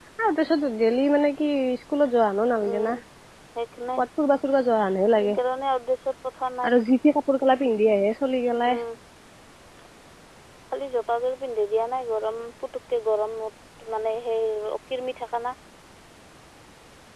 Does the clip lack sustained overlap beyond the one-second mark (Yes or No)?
Yes